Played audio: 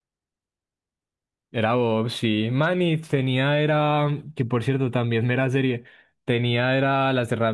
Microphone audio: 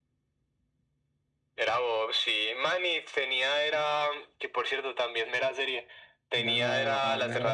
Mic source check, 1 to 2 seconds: echo only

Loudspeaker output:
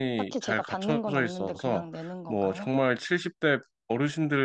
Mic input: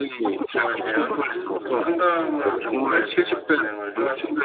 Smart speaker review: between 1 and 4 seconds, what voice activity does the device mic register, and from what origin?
both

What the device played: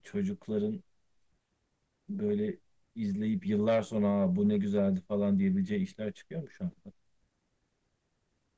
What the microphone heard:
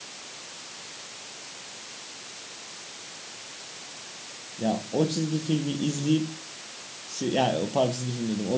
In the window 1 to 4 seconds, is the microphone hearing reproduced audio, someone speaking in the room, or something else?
neither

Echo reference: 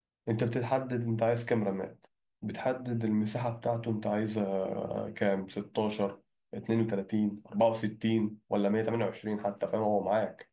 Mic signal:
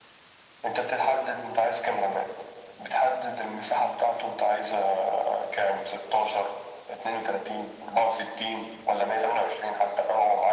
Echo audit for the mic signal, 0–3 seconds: echo only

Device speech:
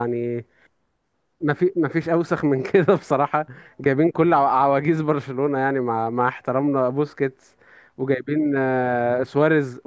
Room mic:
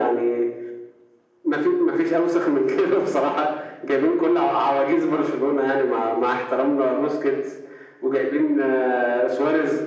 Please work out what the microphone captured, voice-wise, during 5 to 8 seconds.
echo only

